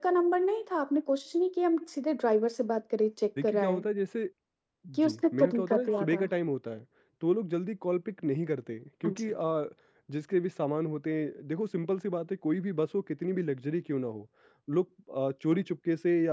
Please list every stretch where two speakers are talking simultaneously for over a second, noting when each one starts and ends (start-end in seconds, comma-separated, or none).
5.0-6.3